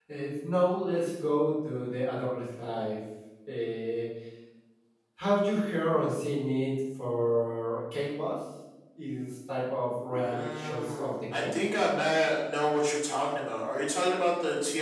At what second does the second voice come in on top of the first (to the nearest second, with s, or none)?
10 s